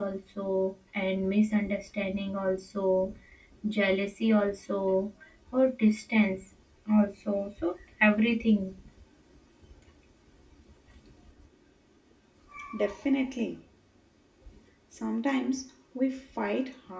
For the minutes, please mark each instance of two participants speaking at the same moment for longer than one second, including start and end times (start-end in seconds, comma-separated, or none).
none